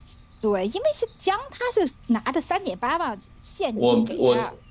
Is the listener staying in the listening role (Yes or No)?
No